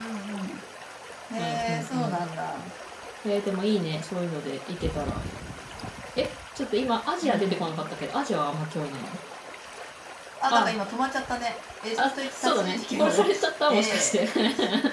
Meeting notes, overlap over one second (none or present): present